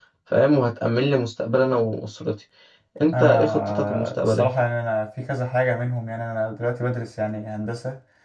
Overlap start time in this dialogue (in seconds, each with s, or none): 3.1 s